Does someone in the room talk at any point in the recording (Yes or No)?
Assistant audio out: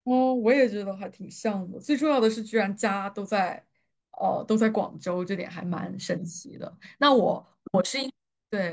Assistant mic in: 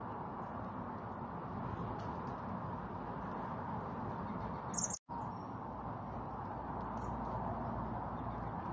No